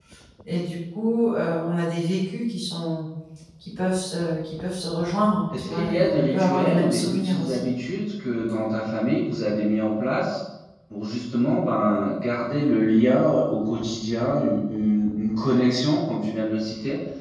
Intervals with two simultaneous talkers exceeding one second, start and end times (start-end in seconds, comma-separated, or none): 5.6-7.7